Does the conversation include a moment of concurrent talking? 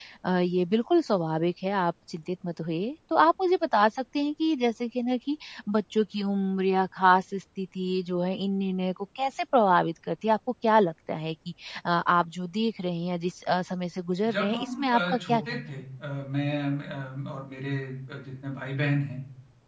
Yes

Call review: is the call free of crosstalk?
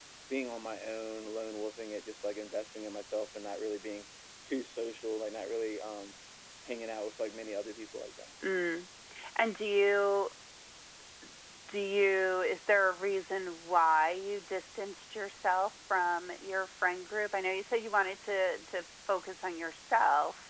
Yes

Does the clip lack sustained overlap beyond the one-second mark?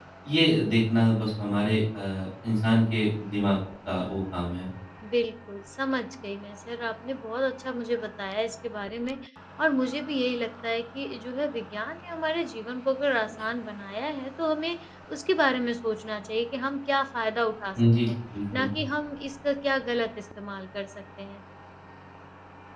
Yes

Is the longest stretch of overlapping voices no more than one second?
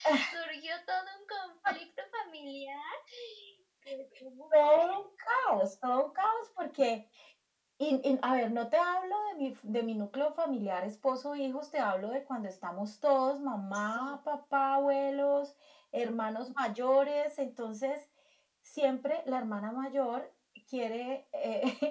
Yes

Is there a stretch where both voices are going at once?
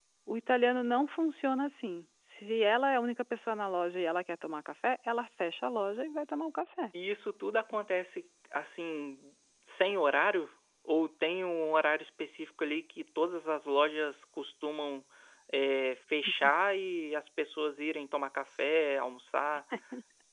No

